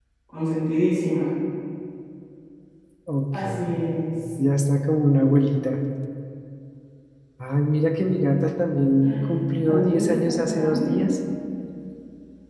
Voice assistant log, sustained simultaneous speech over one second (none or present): present